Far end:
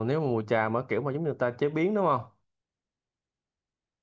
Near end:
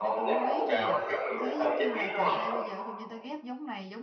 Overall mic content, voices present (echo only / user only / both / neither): both